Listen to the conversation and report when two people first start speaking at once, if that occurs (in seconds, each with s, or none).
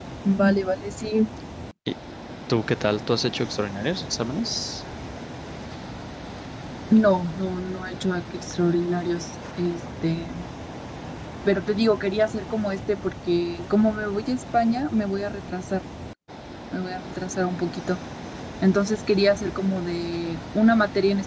none